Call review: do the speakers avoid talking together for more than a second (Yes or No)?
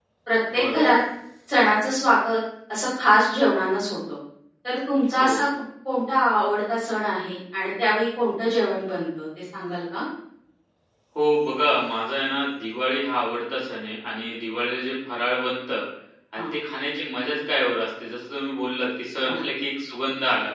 Yes